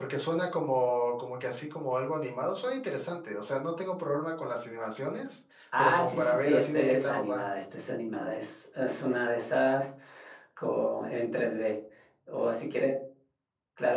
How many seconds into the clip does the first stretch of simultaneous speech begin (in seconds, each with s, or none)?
5.7 s